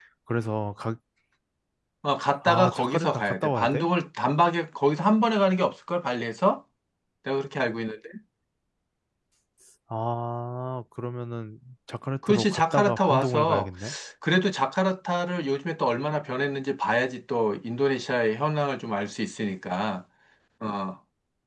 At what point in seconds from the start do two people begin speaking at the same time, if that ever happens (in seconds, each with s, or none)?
2.4 s